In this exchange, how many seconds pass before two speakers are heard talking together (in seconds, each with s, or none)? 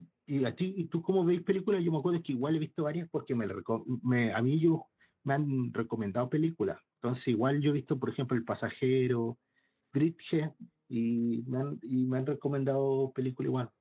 none